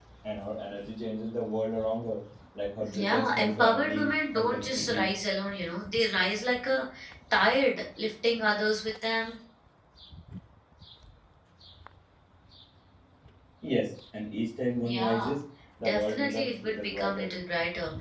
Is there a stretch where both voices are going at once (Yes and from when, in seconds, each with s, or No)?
Yes, from 2.9 s